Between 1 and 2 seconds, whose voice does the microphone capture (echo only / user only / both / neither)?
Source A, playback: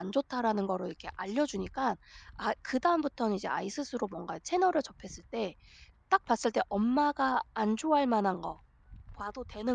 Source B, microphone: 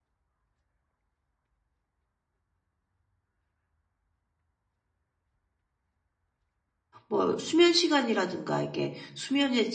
neither